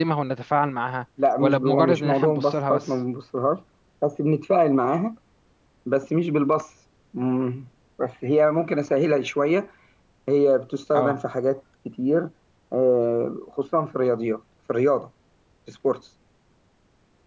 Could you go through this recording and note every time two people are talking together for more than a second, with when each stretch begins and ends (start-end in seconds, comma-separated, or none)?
1.4-2.8